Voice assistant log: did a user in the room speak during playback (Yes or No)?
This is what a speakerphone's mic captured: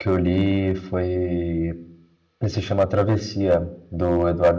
Yes